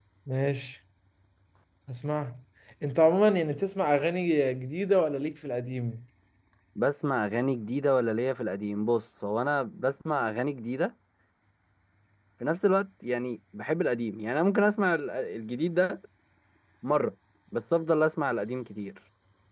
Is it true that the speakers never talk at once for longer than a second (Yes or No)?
Yes